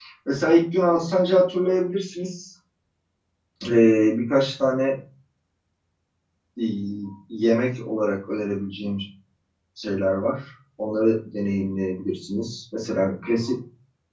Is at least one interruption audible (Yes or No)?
No